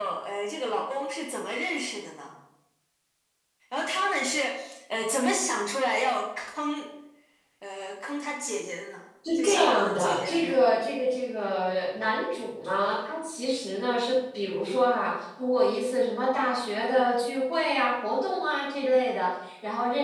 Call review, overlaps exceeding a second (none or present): present